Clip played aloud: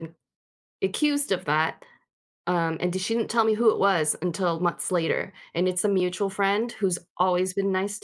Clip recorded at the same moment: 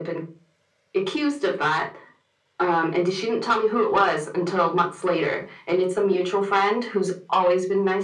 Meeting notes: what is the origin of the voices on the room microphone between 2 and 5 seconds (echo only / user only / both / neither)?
echo only